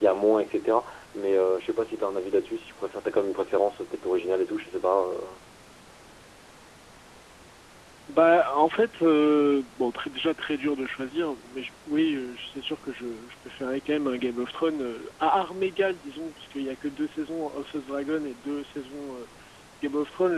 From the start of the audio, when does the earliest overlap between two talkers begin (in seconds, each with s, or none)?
none